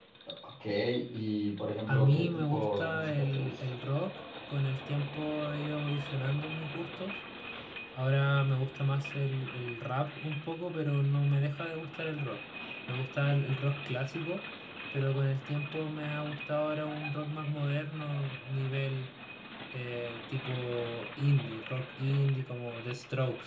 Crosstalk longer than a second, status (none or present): present